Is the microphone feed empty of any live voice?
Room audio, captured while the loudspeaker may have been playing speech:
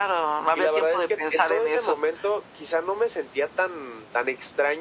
Yes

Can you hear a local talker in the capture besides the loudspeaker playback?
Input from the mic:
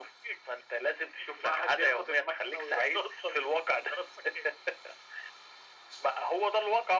No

